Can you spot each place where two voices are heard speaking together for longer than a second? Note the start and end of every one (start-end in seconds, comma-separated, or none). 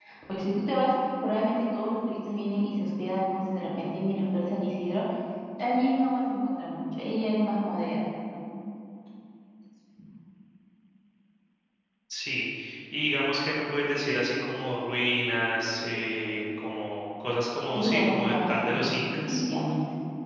17.7-19.4